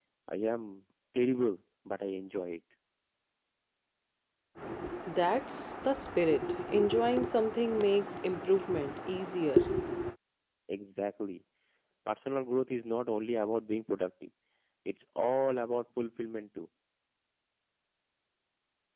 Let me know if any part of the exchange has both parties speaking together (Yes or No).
No